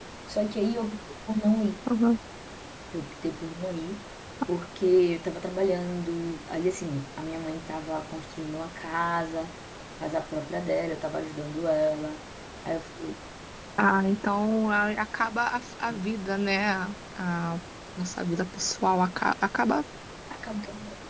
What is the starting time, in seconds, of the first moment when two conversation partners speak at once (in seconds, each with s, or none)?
none